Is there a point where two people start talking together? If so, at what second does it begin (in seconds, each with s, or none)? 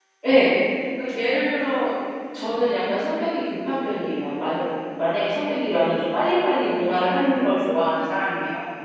none